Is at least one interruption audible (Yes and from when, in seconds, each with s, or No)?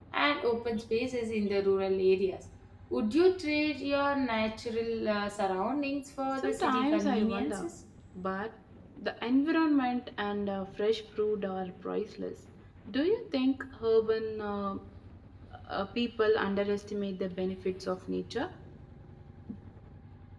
Yes, from 6.4 s